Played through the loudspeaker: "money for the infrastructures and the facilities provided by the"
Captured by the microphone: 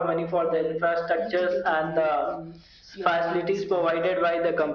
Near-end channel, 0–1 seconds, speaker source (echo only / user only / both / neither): both